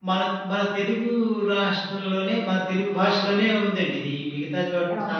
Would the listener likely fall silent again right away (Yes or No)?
Yes